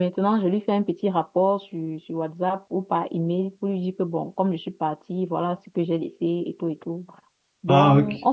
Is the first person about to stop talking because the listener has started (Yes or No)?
No